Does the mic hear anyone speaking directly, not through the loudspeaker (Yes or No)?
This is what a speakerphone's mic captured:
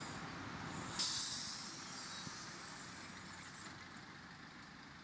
No